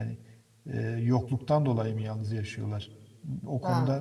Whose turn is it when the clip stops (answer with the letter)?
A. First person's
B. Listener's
B